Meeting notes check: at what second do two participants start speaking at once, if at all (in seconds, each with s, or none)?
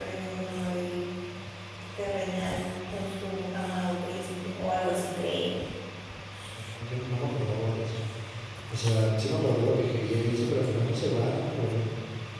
none